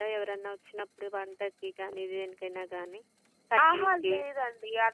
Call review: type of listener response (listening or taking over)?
taking over